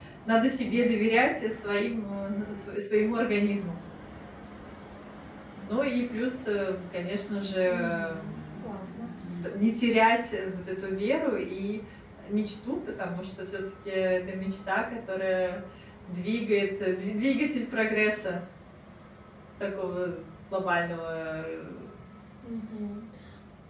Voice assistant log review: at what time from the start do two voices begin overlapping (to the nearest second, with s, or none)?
8 s